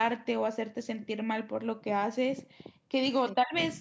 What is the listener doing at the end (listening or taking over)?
listening